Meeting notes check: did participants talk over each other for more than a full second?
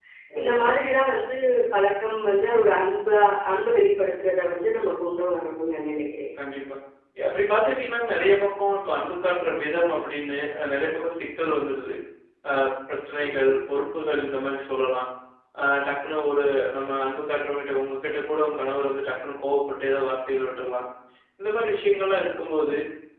No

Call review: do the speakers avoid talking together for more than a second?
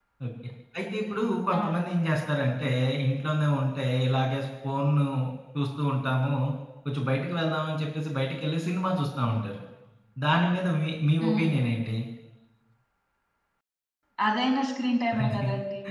Yes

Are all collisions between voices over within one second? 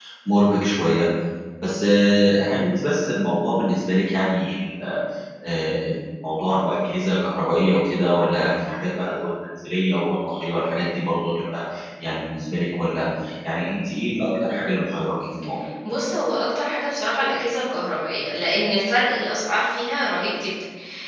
Yes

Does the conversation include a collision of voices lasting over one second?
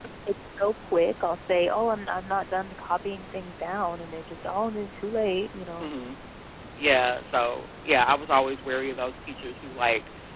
No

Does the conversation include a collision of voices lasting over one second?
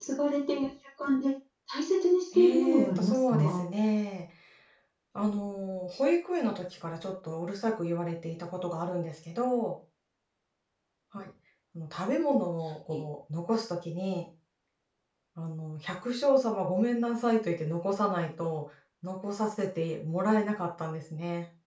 Yes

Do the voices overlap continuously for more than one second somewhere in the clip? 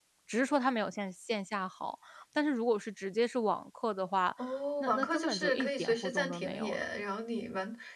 Yes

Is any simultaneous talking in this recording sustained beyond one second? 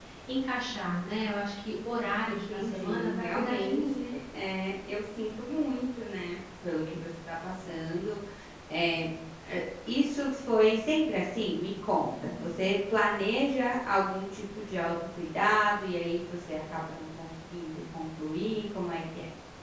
Yes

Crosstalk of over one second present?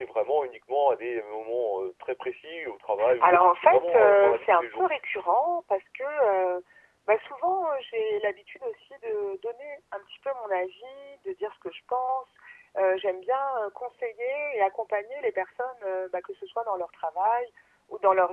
Yes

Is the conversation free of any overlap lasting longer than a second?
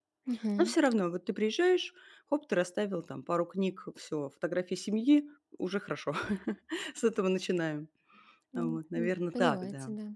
No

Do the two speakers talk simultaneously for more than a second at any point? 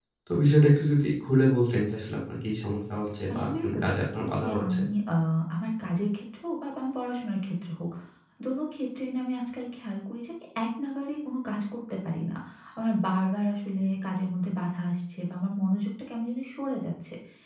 Yes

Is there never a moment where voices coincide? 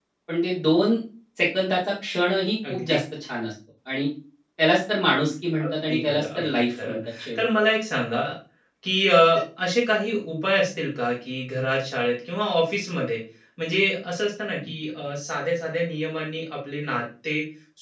No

